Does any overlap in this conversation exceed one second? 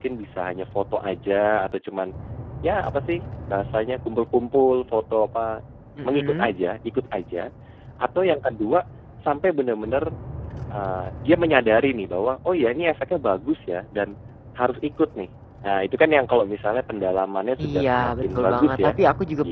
Yes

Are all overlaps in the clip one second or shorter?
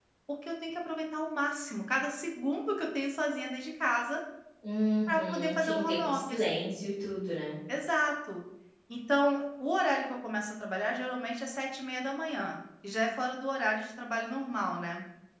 No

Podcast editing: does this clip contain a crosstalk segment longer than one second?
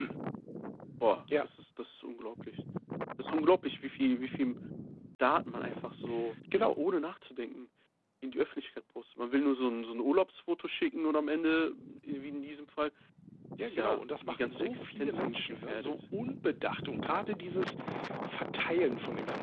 Yes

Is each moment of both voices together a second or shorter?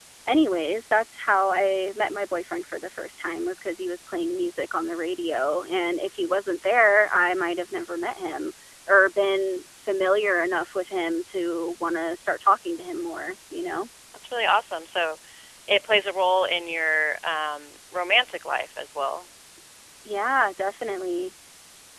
Yes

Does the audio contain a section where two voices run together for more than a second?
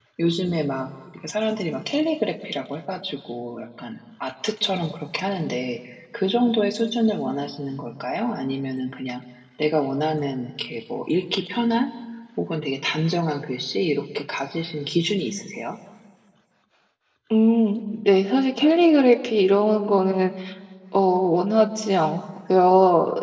No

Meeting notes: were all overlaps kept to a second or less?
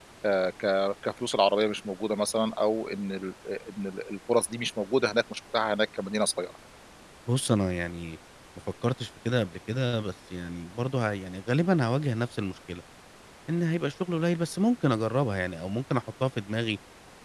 Yes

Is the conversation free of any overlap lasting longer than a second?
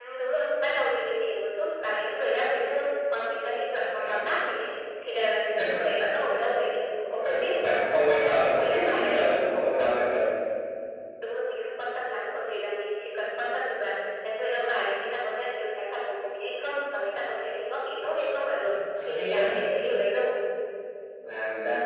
No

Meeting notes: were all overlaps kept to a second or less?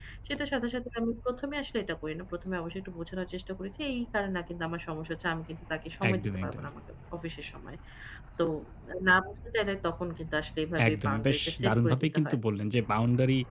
No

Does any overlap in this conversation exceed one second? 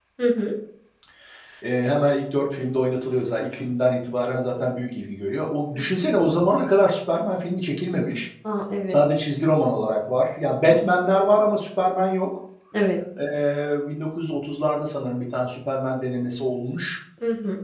No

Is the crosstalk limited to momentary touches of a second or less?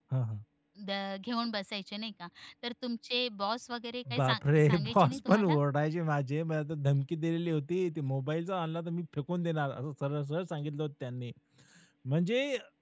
No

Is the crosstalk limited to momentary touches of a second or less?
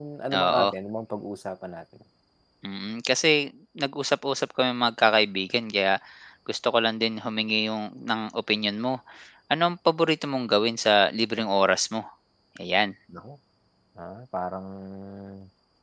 Yes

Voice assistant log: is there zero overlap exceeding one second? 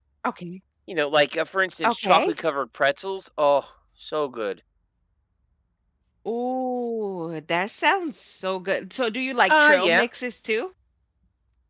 Yes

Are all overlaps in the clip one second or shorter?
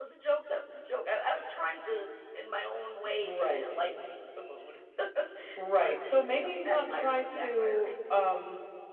No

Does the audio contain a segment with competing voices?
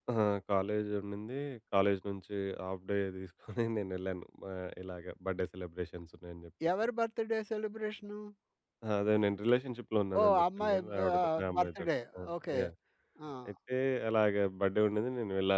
Yes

